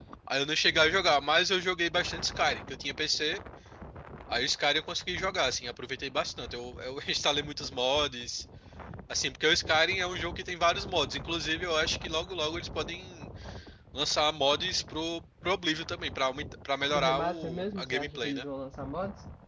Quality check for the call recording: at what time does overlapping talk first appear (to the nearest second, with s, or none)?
17 s